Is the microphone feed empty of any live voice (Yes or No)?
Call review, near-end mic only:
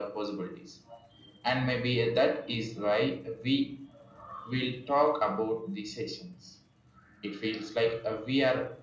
Yes